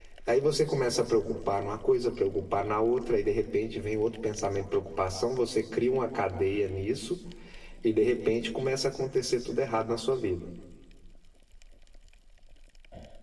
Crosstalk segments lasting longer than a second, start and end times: none

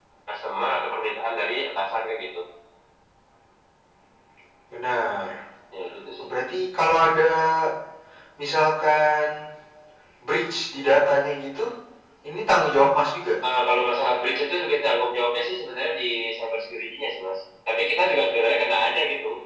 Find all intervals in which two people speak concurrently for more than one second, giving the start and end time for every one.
none

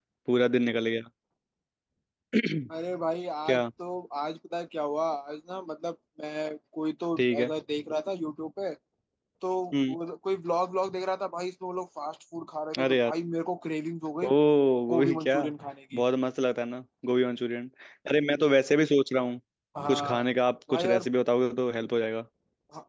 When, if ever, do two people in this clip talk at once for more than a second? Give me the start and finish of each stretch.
none

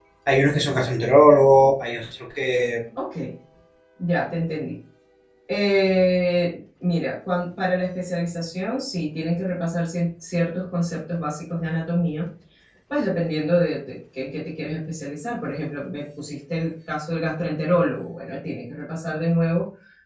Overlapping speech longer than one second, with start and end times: none

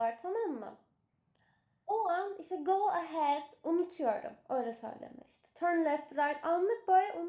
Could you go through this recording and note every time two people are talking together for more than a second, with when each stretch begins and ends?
none

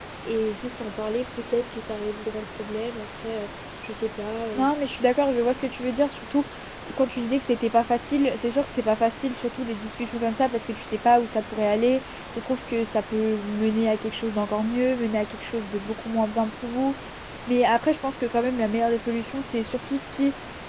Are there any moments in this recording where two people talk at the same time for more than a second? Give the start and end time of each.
none

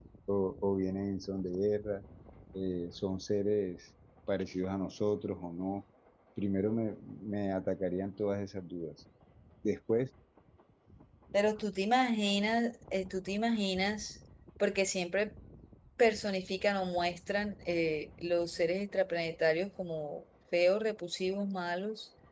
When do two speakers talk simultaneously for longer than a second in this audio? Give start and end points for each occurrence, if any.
none

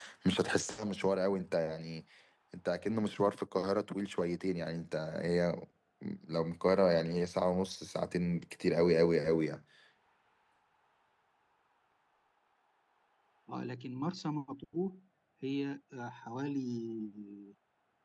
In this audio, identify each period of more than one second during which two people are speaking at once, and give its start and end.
none

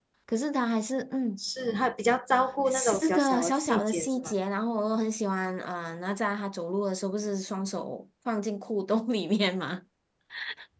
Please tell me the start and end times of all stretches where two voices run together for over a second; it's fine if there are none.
2.7-4.3

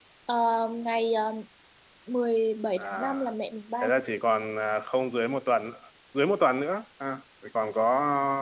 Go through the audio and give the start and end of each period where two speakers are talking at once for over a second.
none

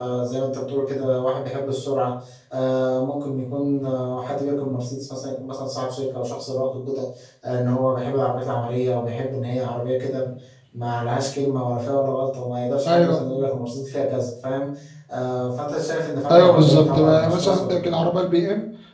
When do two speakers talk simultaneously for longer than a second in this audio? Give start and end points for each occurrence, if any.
16.3-18.0

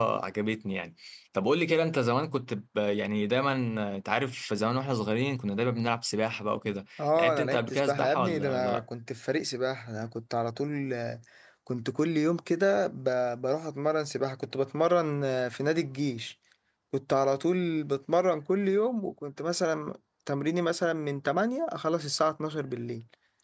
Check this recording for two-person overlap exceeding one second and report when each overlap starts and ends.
7.2-8.8

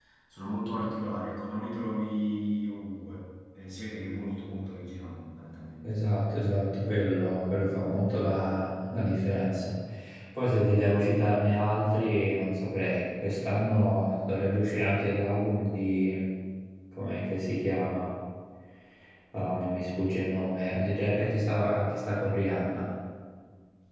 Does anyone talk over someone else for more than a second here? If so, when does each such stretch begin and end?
none

